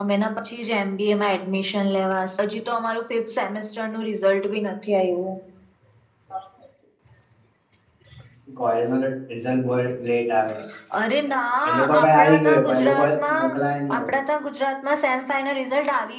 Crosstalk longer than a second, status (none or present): present